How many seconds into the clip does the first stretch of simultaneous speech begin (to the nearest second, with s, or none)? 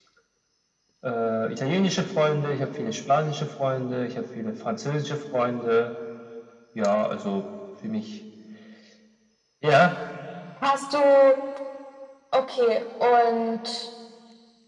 none